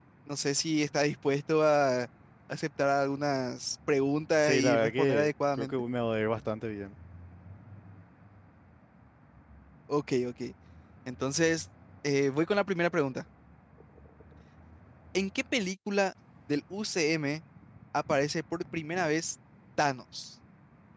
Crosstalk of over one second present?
Yes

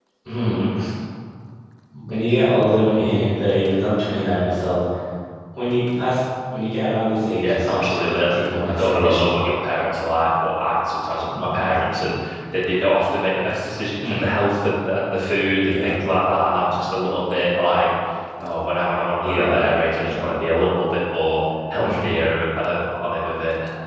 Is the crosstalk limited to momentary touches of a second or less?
No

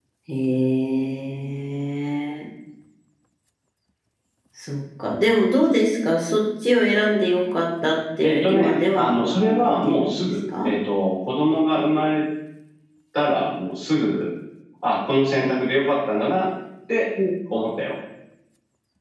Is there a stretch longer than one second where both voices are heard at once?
Yes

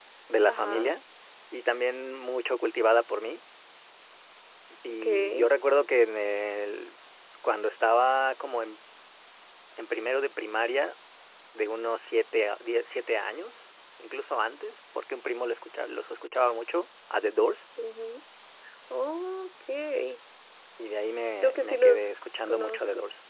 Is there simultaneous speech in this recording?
Yes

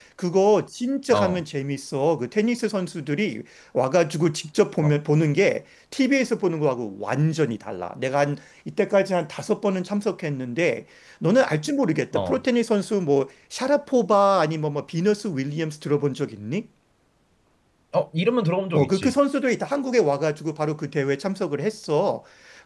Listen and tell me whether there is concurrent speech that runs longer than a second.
No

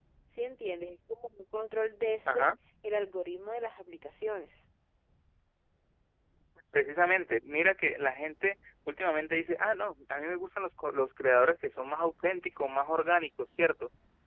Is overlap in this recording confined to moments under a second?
Yes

